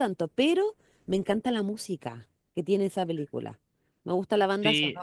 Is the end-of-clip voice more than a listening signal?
Yes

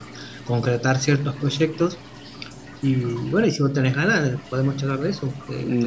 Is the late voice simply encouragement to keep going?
No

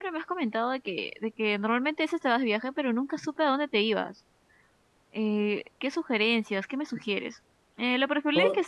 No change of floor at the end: Yes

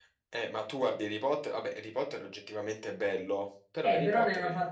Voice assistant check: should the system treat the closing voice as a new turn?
Yes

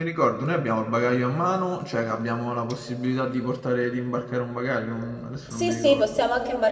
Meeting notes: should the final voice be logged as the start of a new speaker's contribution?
Yes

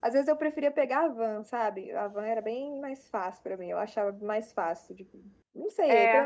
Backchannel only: Yes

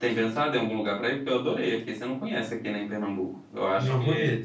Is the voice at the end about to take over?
Yes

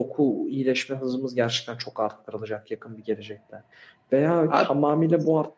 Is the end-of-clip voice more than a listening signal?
No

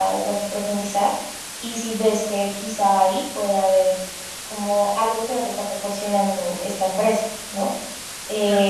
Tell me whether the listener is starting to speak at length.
No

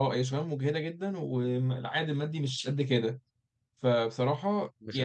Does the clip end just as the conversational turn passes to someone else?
Yes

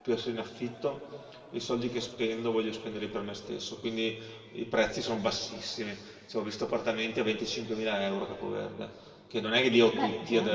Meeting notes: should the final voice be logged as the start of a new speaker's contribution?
No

